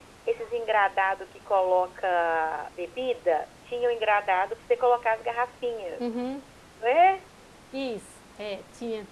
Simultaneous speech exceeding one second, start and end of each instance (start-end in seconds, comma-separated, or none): none